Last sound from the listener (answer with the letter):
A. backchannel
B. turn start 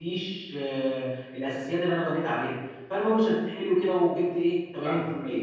A